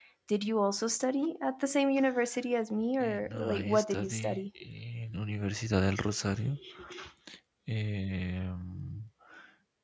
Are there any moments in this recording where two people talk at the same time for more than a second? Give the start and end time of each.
3.0-4.4

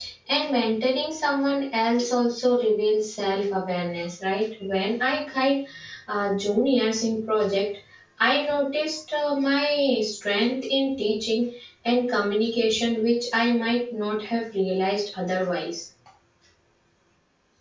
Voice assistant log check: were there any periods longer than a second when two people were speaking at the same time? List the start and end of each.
none

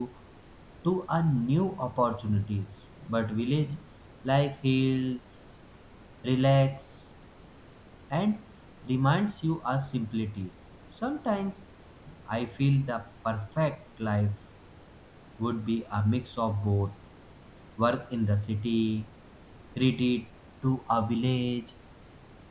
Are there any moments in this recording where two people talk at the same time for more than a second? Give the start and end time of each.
none

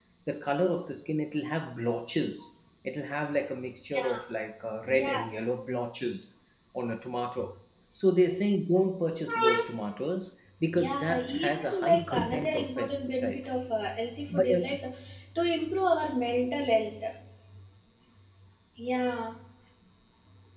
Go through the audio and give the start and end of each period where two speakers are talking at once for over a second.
10.8-13.5

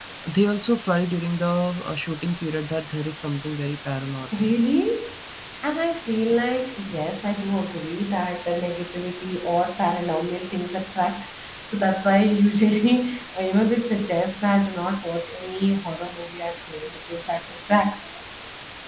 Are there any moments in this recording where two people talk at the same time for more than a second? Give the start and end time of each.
none

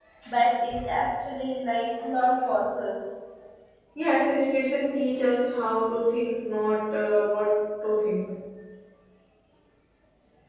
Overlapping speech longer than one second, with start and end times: none

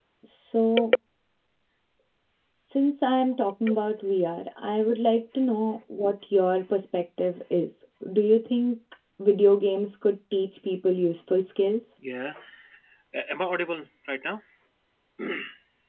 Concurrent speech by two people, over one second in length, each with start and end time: none

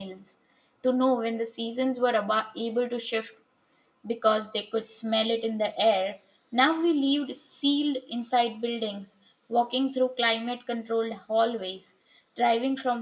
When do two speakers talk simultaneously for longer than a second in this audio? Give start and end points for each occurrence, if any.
none

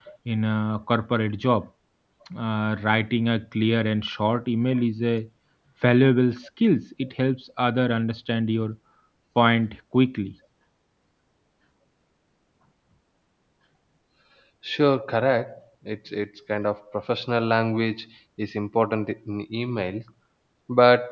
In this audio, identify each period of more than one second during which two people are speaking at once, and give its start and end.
none

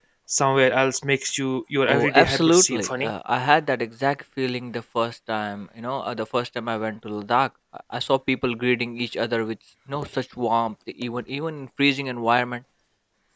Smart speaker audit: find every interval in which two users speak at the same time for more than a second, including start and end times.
1.9-3.1

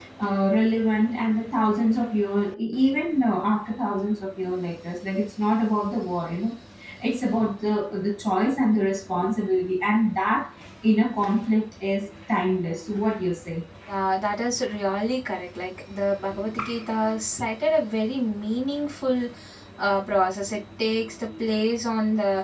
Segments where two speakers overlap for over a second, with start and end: none

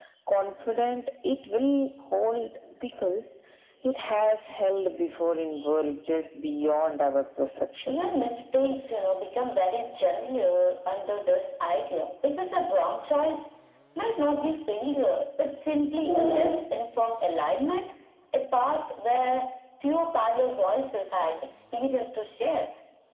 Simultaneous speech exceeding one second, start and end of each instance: none

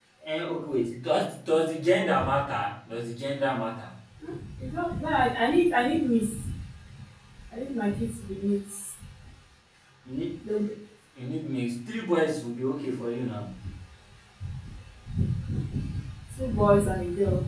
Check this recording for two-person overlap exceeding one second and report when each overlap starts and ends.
none

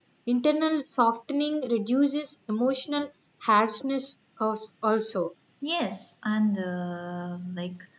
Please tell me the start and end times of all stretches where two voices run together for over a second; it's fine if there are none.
none

